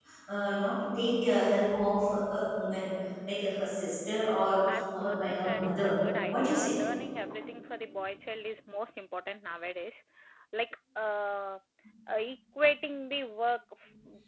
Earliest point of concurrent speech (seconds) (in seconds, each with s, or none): 4.7 s